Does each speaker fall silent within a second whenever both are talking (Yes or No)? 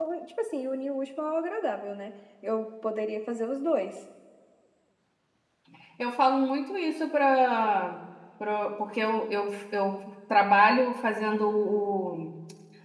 Yes